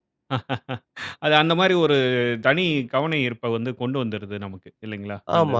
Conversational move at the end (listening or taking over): taking over